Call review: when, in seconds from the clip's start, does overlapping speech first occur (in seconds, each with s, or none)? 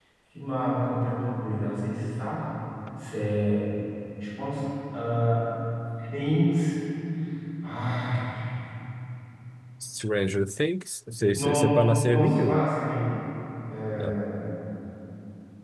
11.3 s